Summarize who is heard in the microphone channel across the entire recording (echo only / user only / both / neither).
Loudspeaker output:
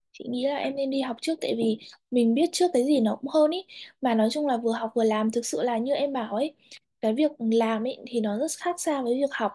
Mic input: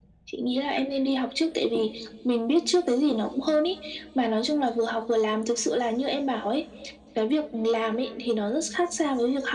echo only